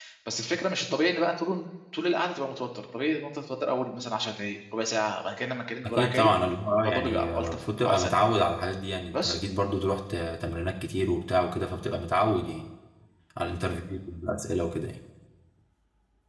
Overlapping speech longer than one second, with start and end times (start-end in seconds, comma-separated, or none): 6.8-8.3